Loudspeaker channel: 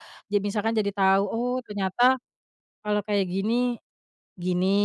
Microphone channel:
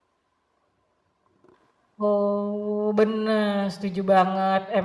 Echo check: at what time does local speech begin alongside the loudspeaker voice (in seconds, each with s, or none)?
2.0 s